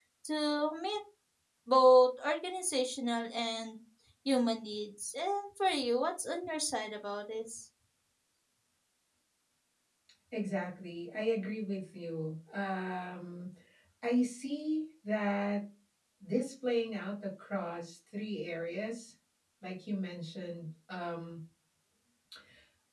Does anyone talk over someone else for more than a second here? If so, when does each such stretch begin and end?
none

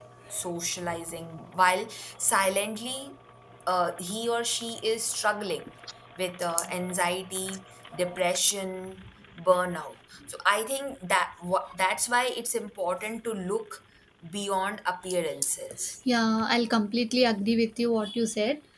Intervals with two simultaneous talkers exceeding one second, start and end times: none

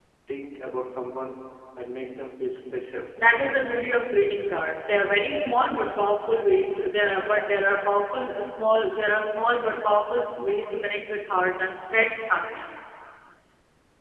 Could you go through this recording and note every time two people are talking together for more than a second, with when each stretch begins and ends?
none

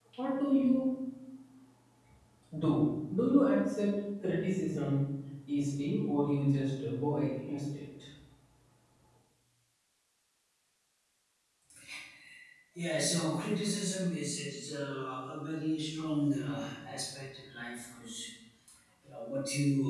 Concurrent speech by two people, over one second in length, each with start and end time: none

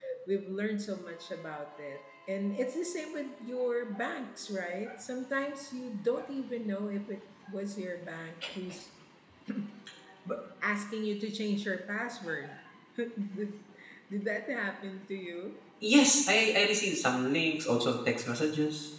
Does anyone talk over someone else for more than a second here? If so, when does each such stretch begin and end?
none

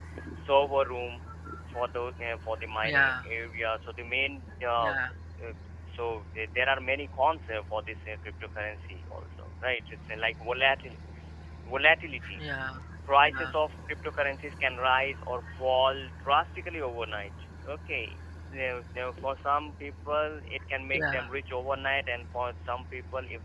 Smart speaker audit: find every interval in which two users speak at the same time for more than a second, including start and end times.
none

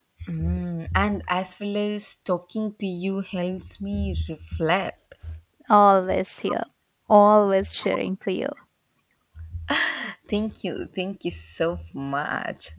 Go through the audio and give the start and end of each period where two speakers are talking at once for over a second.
none

